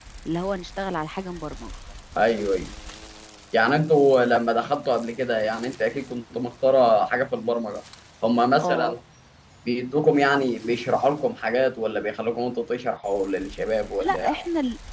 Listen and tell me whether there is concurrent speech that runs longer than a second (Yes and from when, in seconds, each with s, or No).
No